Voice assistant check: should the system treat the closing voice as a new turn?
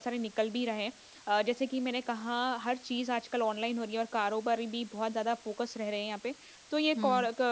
No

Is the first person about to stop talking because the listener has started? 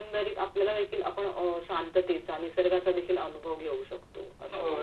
Yes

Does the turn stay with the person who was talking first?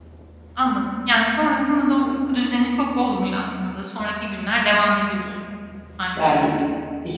No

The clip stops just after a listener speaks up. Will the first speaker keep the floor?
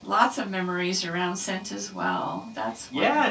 No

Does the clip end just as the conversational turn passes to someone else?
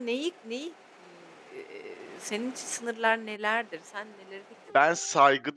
Yes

